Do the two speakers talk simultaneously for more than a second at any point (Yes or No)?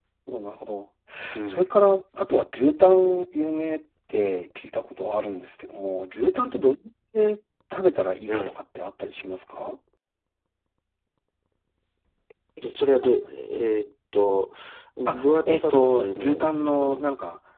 Yes